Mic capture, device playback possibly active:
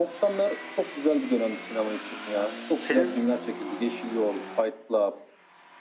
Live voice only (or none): Senin